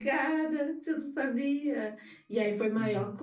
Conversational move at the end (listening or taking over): listening